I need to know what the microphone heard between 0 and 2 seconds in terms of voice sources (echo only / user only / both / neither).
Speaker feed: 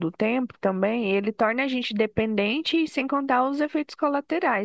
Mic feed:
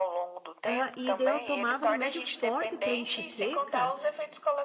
both